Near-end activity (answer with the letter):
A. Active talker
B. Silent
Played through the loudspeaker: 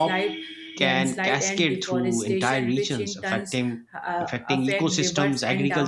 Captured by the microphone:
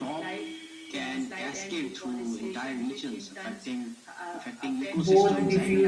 A